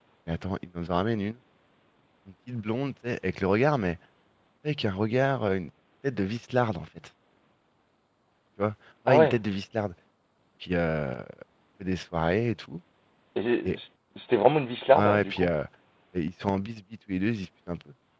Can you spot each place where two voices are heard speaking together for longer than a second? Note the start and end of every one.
none

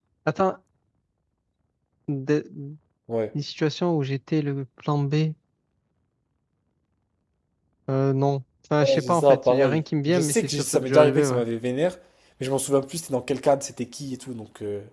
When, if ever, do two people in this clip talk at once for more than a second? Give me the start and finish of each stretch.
8.8-11.4

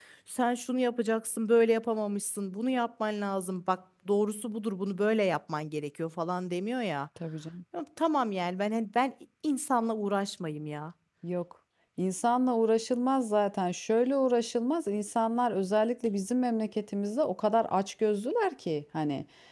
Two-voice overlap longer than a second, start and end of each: none

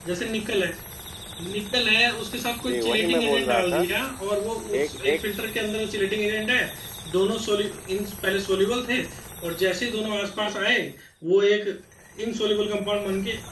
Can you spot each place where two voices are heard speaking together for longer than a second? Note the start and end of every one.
2.6-3.9

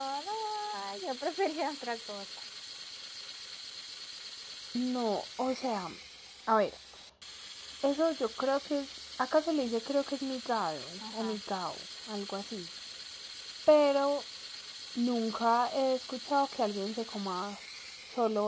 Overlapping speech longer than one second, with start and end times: none

